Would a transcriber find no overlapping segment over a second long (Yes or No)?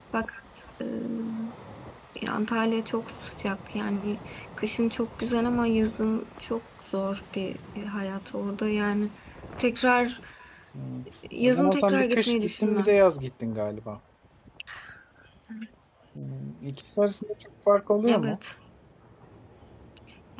No